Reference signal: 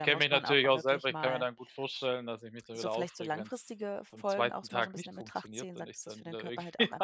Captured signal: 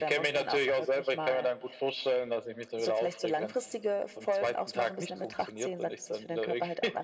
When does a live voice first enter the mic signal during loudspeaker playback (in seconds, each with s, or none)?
none